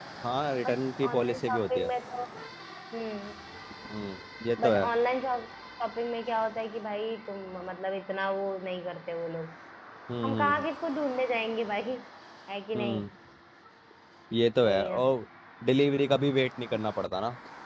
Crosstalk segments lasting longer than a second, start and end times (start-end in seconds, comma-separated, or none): 0.7-1.9